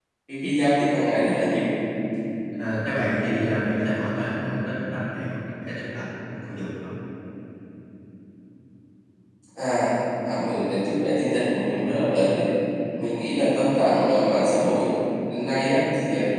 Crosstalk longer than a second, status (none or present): none